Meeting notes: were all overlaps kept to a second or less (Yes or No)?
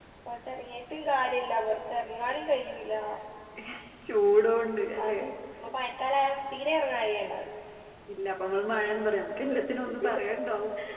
Yes